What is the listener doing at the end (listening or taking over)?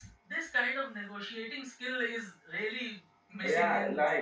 taking over